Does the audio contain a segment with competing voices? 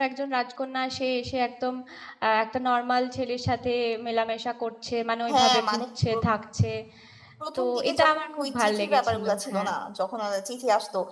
Yes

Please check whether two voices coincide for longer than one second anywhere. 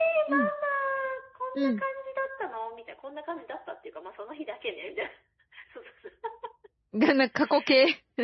No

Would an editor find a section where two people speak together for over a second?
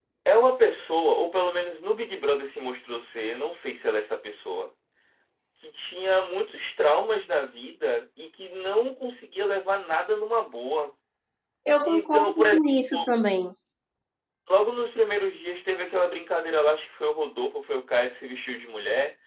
Yes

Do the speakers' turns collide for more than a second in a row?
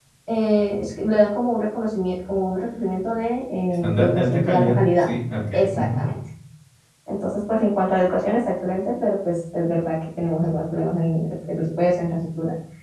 Yes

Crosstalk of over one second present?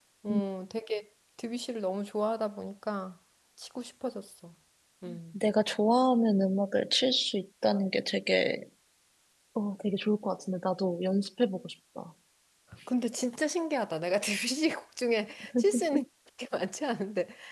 No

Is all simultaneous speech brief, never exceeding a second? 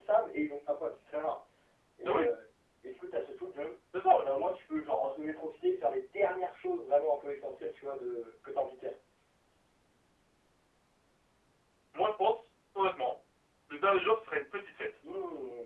Yes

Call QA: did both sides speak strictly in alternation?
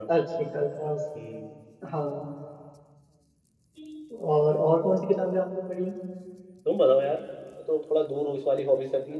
Yes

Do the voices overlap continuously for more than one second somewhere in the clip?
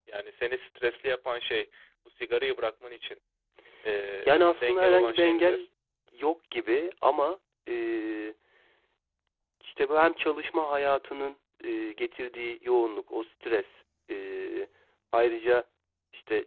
Yes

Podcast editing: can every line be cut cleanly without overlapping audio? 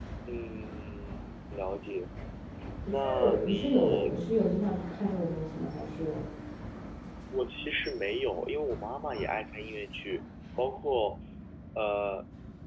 No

